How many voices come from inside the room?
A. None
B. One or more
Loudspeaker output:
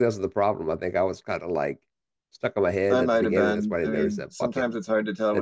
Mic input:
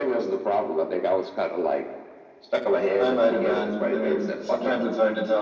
A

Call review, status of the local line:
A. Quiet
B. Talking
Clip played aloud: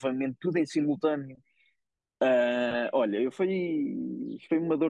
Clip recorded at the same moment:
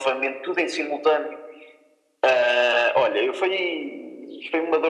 A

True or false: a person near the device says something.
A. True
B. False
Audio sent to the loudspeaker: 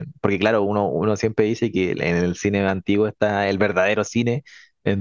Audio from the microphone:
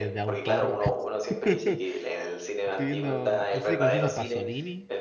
A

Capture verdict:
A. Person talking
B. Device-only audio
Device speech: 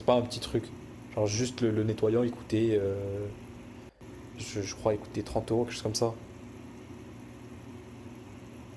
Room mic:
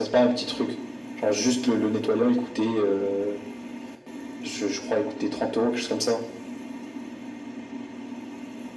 B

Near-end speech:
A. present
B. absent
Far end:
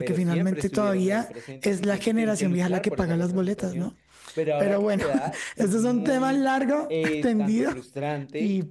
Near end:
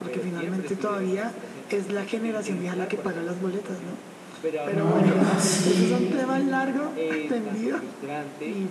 A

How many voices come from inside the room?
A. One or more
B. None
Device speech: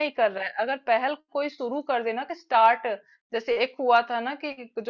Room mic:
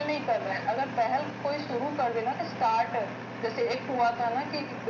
B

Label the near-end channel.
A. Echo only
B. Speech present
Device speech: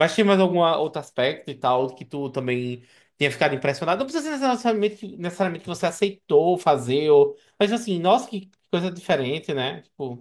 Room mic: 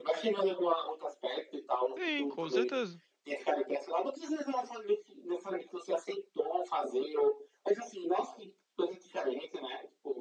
B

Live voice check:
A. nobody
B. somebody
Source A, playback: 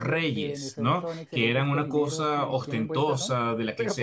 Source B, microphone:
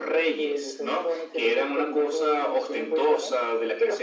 A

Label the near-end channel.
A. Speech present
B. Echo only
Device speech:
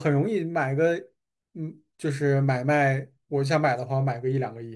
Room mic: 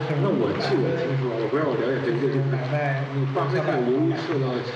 A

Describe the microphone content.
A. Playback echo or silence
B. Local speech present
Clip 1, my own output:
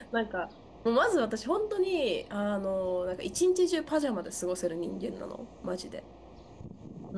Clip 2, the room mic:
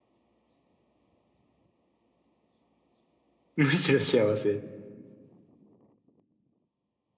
B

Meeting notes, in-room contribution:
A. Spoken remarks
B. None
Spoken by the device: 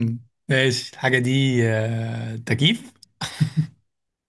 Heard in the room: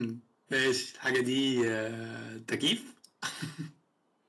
B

